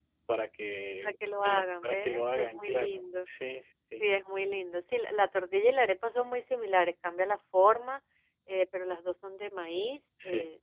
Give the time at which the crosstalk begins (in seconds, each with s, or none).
1.0 s